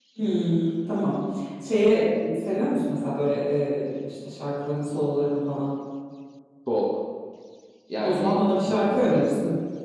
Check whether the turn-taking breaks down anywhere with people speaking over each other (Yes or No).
Yes